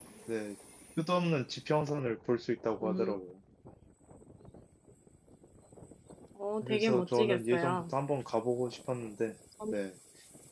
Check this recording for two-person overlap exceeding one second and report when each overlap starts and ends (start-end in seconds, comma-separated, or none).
6.6-7.9